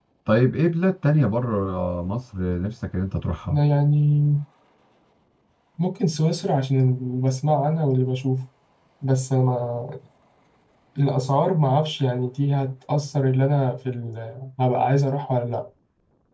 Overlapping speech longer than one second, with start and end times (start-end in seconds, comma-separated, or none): none